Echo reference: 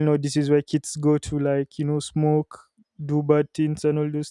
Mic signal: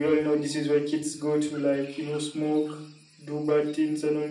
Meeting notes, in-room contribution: none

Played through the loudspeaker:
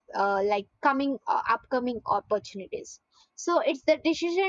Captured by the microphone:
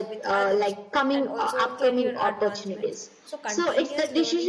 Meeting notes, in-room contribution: present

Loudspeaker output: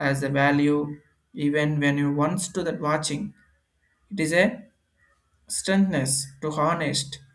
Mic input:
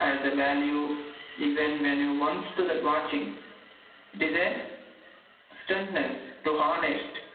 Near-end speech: none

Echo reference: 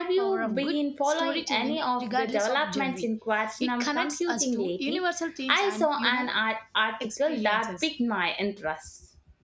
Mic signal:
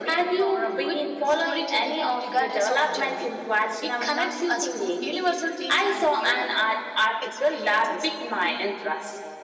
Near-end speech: none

